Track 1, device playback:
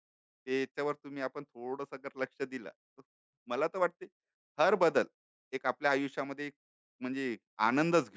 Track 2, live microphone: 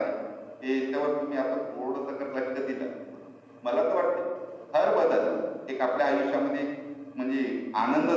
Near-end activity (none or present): none